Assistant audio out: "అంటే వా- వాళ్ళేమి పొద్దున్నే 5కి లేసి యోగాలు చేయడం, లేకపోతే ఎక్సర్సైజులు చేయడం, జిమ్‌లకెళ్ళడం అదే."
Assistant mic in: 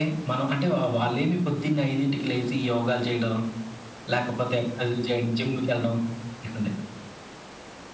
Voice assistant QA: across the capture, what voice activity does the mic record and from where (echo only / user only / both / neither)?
echo only